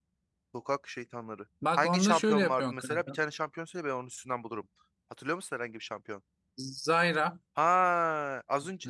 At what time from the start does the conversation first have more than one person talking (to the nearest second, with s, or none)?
2 s